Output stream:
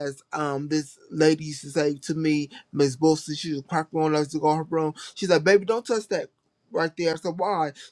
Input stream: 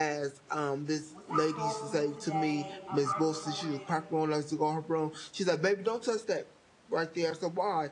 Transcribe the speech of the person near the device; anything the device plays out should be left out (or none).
What's in store for me today? I'm ready for it.